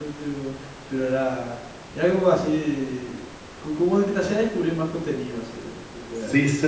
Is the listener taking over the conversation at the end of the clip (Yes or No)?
Yes